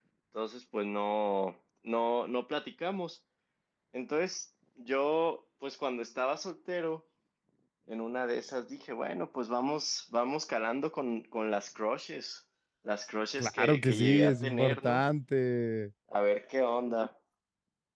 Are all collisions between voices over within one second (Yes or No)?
No